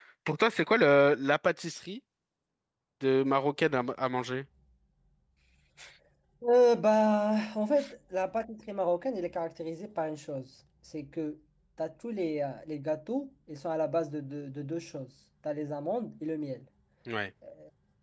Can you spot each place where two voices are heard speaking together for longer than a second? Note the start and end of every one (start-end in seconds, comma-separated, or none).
none